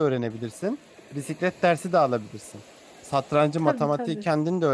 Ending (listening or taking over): listening